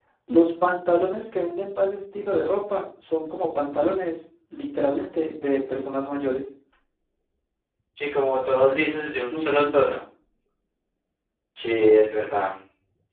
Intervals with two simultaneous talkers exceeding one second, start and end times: none

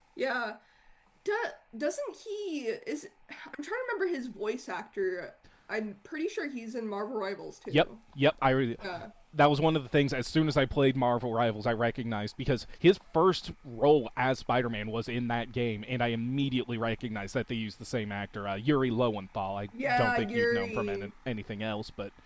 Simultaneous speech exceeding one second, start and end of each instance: 19.7-21.1

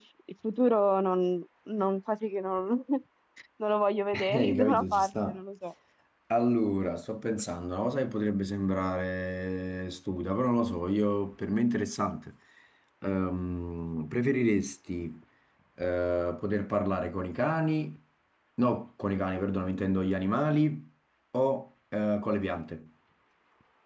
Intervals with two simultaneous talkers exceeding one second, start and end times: 4.1-5.4

